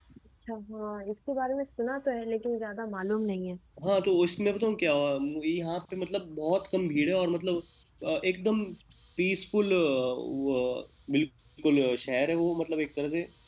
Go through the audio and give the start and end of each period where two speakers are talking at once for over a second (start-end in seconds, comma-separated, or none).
none